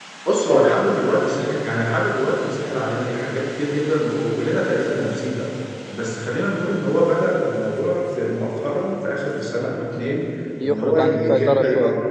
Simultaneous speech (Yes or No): Yes